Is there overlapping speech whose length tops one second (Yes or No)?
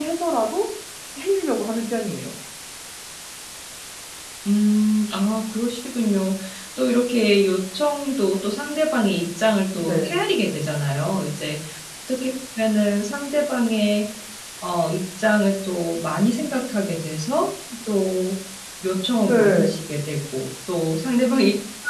No